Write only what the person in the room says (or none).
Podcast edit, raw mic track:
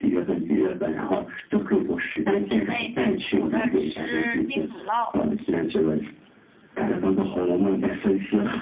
三姐妹在祖母那儿吃冰乳酪，